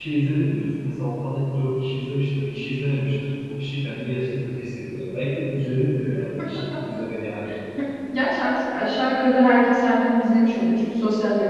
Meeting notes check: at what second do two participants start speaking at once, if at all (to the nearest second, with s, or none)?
none